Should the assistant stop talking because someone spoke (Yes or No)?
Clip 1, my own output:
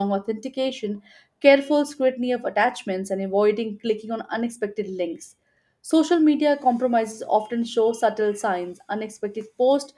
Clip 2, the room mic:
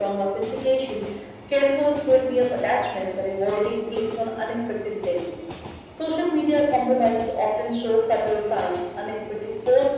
No